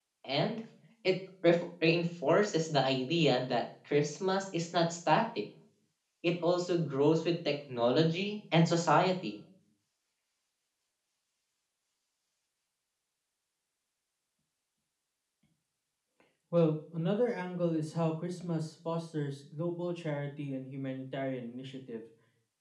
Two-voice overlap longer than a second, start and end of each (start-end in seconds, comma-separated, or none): none